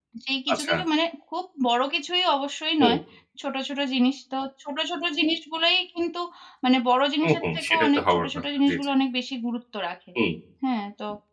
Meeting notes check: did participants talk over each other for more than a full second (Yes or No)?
Yes